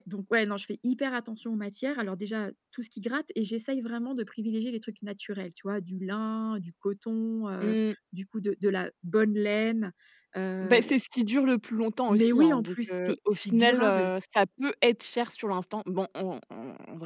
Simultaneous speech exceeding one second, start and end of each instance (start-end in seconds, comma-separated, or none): 12.1-14.1